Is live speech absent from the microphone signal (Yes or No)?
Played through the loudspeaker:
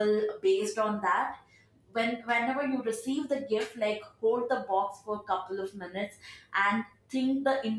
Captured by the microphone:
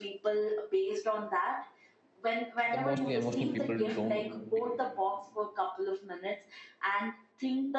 No